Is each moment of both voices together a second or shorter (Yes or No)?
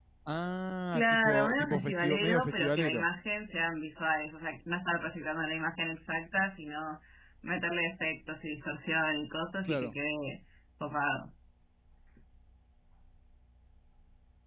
No